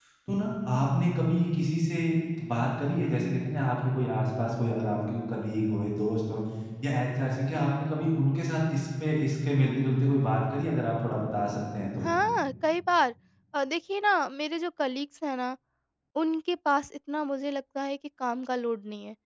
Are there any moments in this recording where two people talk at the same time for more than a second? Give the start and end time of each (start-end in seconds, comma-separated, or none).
none